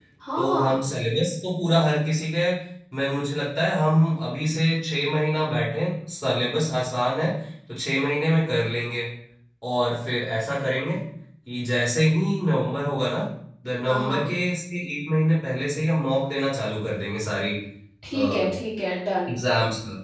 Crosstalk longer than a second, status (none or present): none